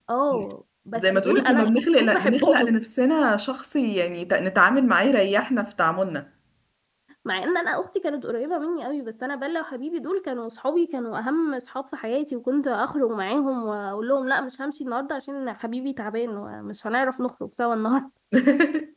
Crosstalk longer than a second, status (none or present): present